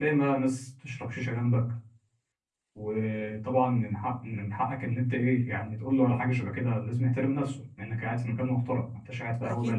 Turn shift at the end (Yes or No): Yes